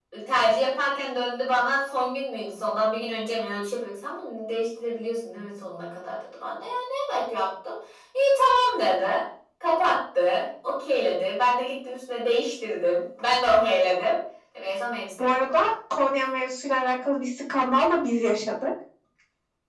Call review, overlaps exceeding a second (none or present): none